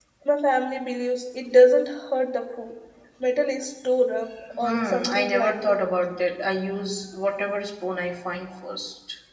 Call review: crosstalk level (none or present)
present